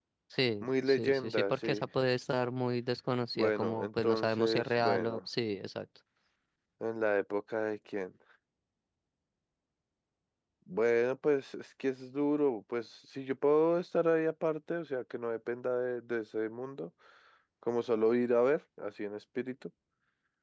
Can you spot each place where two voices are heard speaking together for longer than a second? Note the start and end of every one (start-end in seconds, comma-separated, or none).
0.6-1.8, 3.4-5.2